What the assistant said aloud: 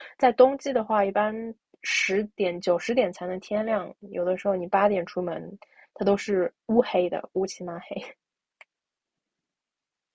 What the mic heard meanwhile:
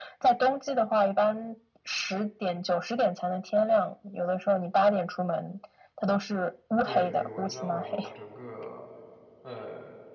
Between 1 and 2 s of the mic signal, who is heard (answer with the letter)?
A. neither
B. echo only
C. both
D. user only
B